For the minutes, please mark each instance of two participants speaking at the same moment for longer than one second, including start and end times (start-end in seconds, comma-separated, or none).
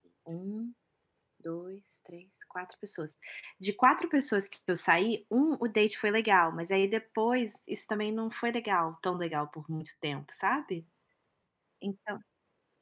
none